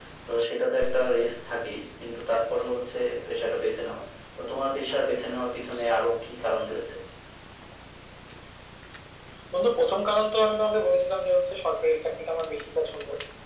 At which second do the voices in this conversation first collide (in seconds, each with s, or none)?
none